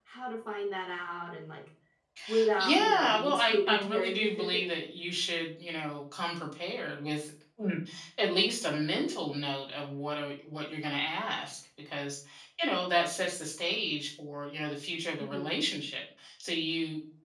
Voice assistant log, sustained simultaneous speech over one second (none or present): present